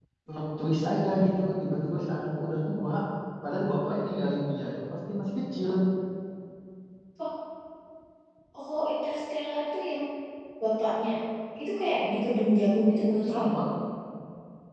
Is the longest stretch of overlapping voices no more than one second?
Yes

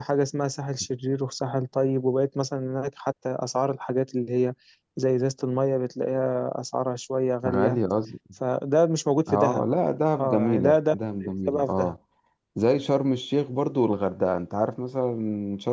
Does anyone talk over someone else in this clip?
Yes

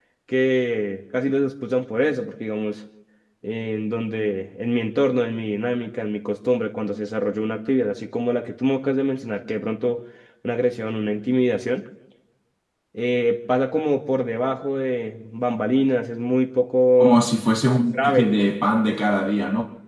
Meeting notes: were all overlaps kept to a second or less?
Yes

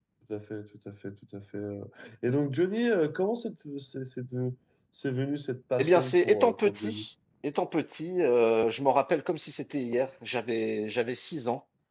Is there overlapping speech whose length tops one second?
Yes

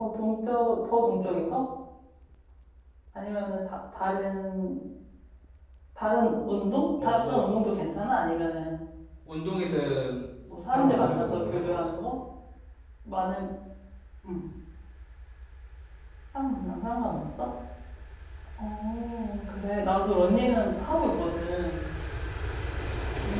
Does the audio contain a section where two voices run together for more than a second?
Yes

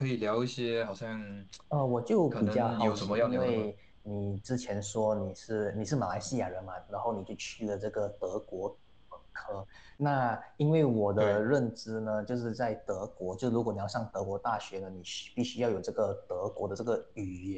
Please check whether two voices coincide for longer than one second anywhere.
Yes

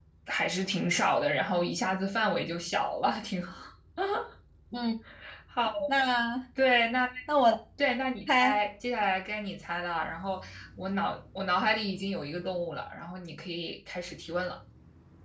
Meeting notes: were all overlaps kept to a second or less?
Yes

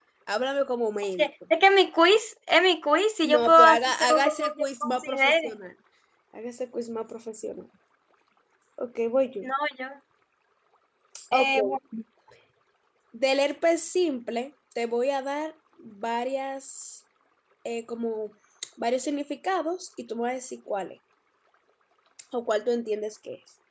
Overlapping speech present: Yes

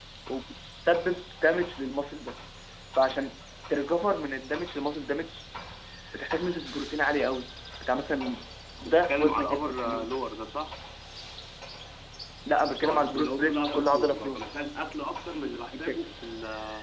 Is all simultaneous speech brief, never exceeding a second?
No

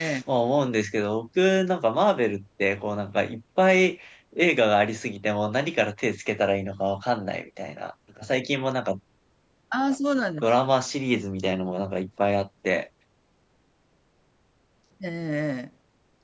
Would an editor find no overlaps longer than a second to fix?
Yes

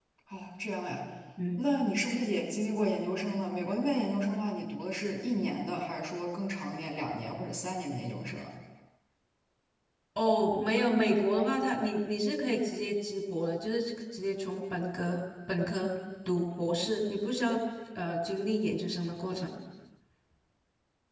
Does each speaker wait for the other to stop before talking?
Yes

